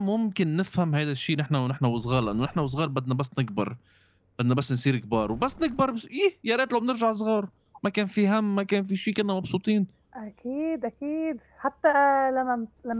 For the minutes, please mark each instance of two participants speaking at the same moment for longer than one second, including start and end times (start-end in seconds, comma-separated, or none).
none